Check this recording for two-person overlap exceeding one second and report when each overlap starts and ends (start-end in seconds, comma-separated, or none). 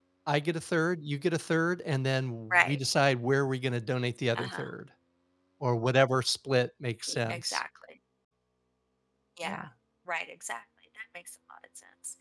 none